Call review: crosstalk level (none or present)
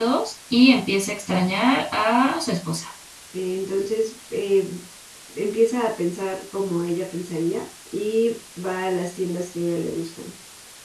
none